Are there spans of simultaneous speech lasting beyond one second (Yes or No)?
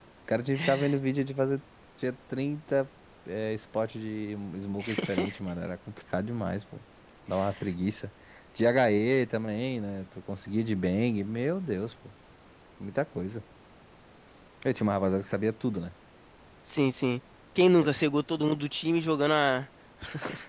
No